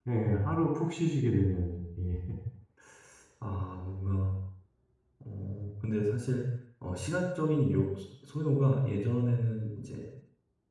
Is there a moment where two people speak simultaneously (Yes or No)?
No